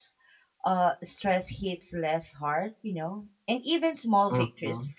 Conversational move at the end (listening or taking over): listening